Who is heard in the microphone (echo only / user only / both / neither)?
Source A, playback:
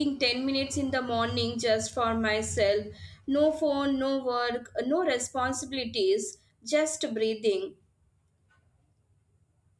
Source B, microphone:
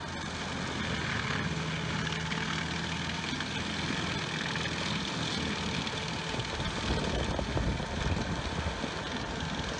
neither